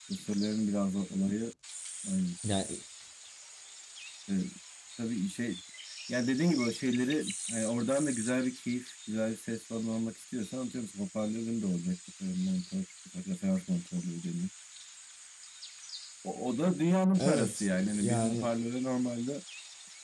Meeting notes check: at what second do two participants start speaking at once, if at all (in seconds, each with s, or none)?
17.2 s